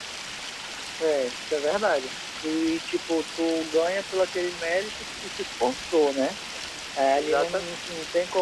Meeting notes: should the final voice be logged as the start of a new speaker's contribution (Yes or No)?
No